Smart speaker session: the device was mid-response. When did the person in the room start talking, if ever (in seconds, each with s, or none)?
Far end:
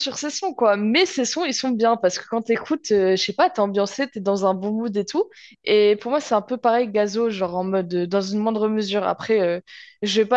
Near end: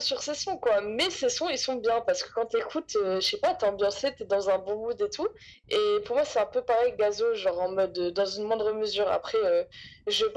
none